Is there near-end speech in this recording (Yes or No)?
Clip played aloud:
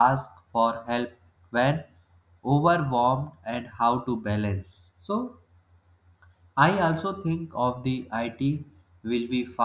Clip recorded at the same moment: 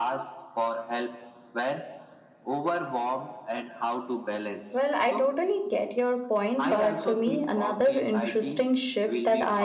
Yes